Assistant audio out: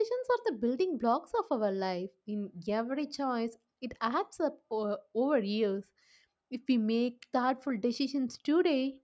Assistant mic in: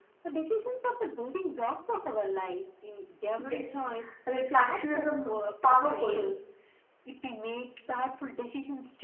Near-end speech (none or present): present